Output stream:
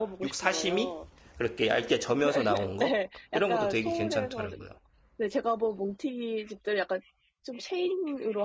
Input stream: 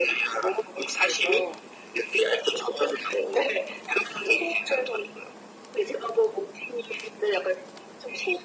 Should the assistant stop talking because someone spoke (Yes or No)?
No